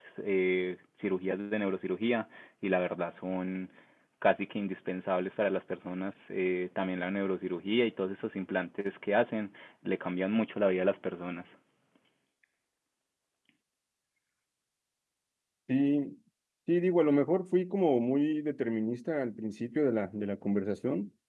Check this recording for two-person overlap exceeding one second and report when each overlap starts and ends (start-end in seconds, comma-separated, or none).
none